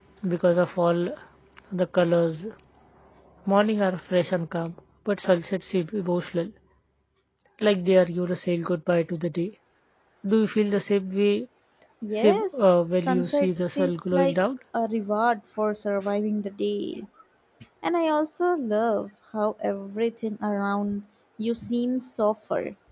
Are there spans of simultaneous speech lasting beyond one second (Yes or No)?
Yes